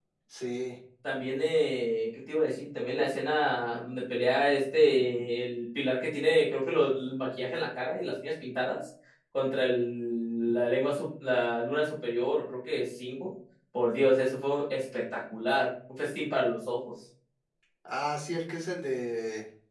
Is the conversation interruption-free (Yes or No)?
Yes